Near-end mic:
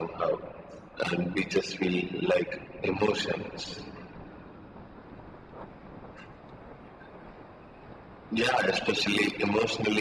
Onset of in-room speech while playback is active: none

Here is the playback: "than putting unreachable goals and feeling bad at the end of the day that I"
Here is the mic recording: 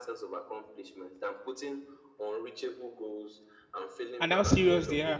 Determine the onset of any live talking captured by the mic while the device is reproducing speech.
4.2 s

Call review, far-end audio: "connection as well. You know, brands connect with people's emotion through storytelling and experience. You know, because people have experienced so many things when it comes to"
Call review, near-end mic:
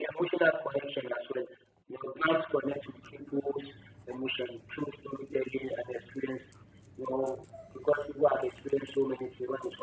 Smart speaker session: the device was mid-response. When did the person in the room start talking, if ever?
none

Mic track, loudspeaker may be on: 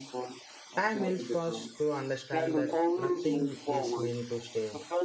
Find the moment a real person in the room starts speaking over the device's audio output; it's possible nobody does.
0.8 s

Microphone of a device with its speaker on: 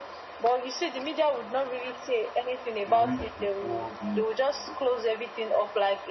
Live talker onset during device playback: 2.8 s

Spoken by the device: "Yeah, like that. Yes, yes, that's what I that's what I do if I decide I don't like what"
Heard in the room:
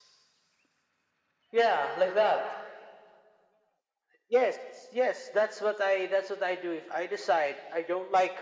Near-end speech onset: none

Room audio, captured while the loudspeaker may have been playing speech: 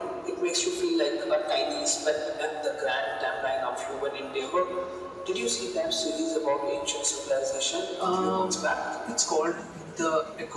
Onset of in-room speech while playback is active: 8.0 s

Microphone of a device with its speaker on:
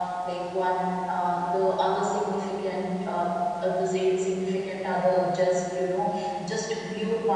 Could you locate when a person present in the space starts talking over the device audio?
none

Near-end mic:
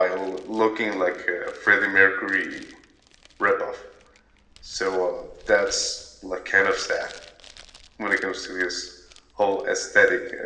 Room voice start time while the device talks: none

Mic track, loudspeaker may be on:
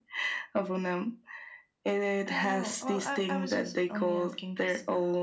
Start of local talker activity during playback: 2.3 s

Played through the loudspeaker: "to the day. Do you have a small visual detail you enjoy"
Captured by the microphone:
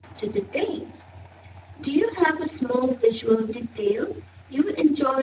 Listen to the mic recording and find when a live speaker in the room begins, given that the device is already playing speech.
none

